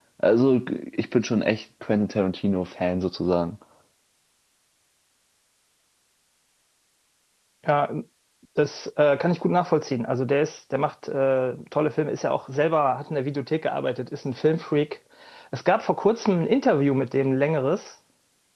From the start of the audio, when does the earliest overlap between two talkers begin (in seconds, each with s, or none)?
none